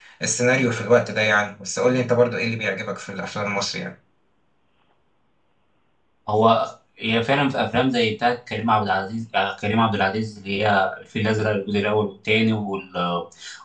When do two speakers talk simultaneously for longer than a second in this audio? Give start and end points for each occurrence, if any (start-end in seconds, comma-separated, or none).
none